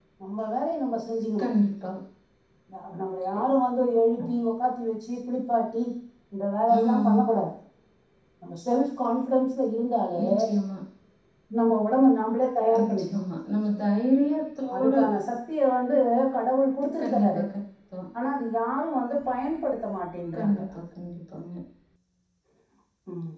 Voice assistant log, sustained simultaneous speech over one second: none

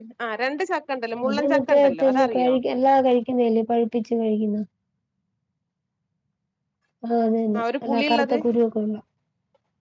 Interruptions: present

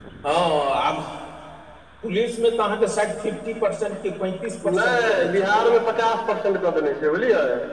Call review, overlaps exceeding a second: present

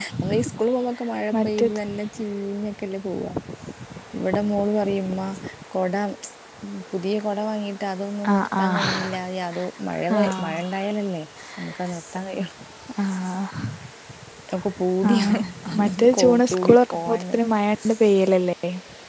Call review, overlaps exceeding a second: present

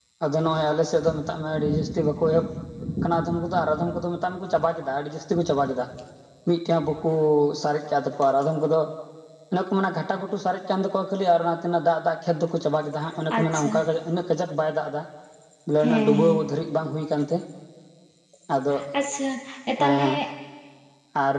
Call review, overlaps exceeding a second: none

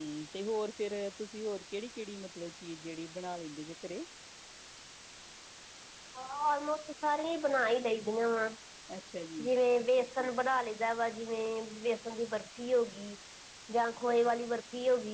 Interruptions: none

